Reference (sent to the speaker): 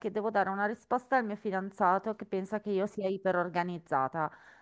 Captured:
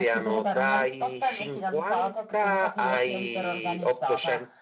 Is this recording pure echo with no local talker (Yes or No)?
No